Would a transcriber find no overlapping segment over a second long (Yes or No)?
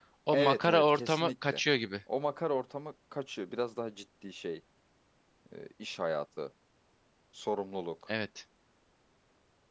No